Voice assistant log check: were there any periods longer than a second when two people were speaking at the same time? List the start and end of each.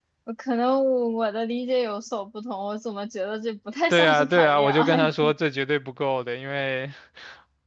3.9-5.3

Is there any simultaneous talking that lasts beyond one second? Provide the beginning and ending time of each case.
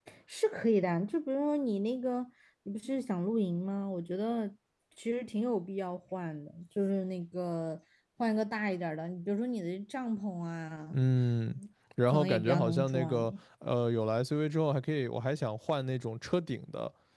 12.1-13.3

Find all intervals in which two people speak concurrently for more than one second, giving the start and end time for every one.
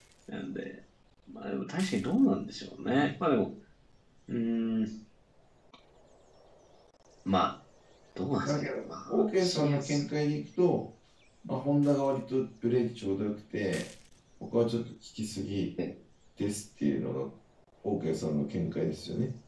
8.4-10.0

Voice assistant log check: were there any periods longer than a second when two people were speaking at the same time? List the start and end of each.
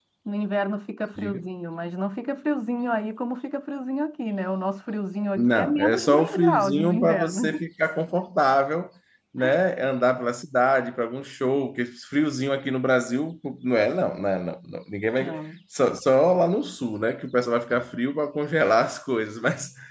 5.4-7.6

